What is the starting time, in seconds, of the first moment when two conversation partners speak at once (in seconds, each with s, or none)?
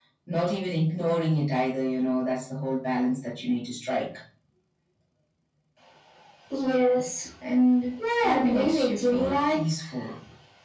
8.2 s